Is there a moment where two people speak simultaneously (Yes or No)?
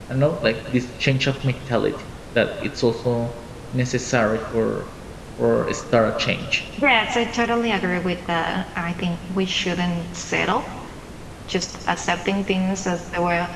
No